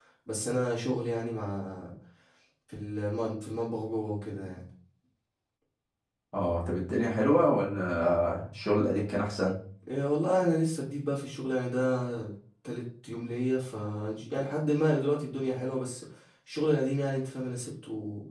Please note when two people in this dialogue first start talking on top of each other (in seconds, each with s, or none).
none